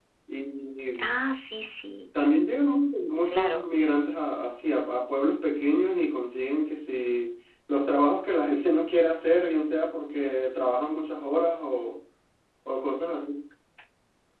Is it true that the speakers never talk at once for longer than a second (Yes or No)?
Yes